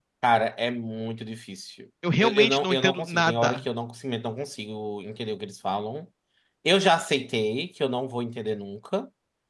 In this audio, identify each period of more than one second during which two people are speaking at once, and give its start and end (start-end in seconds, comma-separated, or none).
2.2-3.6